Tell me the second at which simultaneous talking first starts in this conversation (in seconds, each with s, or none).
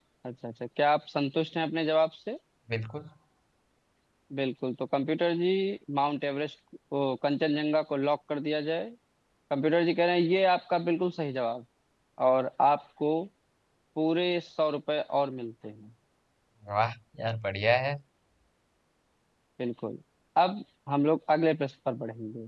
none